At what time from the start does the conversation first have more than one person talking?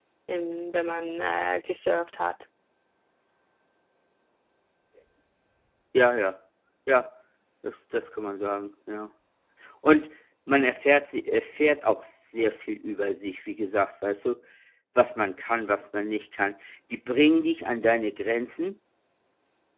none

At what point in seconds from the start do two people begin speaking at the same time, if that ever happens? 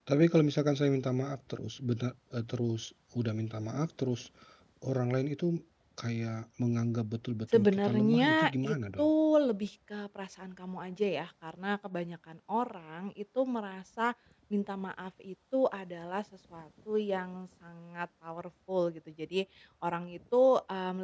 8 s

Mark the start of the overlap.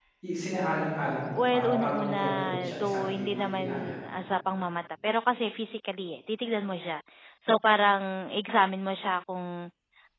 1 s

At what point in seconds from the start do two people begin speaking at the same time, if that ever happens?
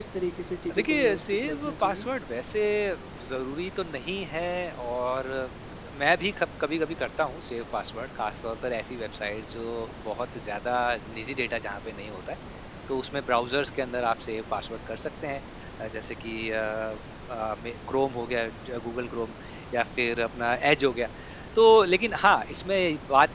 1 s

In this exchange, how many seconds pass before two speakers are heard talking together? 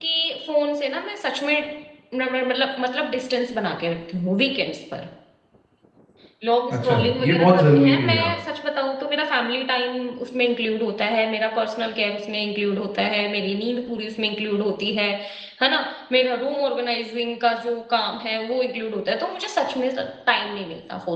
7 s

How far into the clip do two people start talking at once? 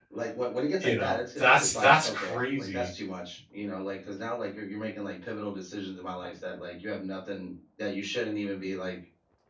1 s

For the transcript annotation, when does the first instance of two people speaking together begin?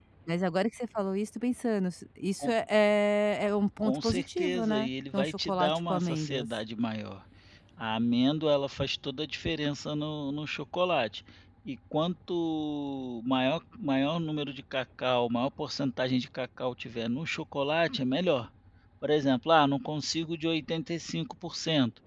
4 s

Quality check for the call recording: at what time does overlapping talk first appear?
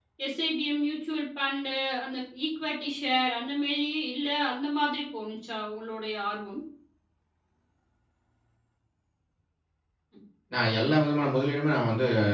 none

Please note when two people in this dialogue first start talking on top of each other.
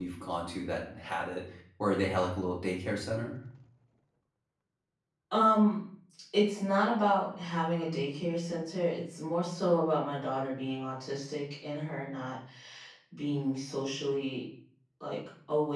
none

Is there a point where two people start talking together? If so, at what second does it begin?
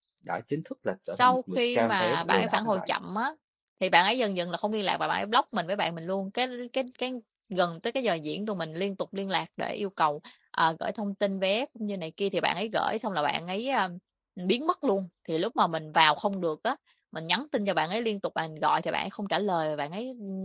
1 s

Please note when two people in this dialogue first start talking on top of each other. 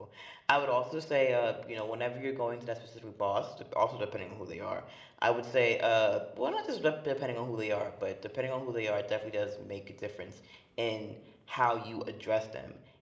none

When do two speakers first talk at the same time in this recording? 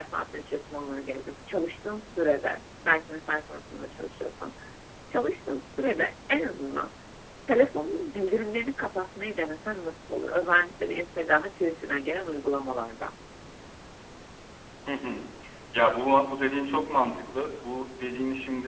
none

